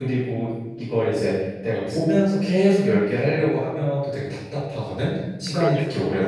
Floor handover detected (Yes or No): No